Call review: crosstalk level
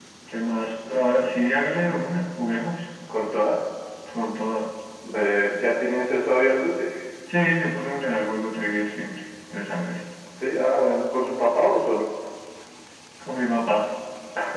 none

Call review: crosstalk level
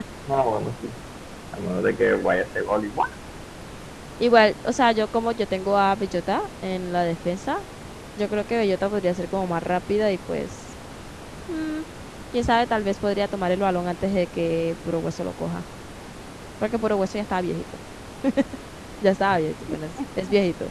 none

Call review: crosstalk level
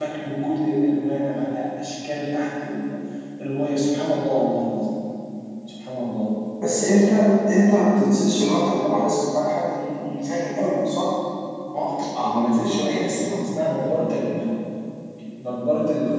none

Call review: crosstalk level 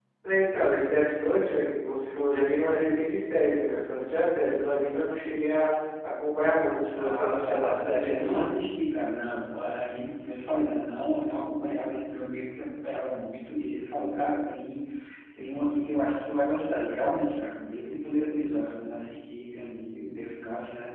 present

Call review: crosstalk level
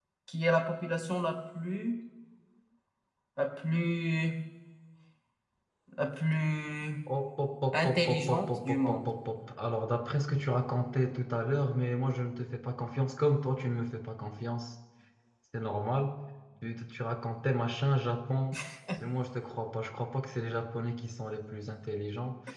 present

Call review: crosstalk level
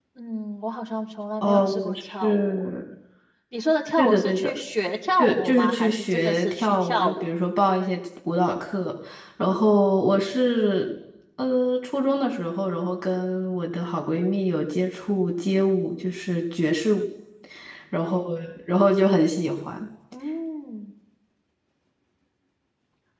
present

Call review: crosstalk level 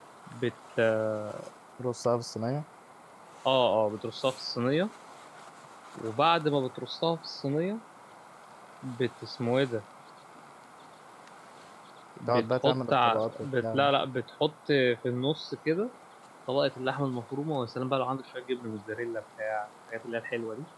present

